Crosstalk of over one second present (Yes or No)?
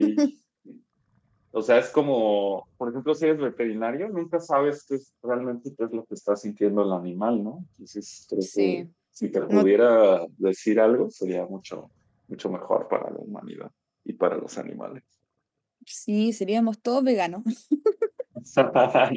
No